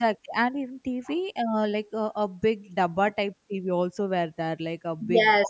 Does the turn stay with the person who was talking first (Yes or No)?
No